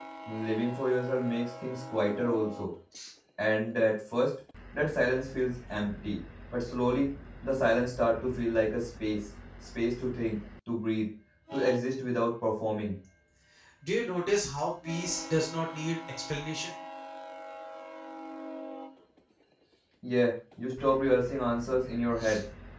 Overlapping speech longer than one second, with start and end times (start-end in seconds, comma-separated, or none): none